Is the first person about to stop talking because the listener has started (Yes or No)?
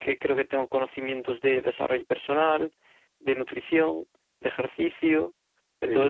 No